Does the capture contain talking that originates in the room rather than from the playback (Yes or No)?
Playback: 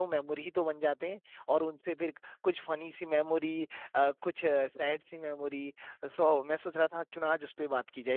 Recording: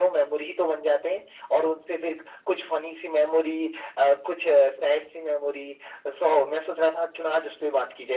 No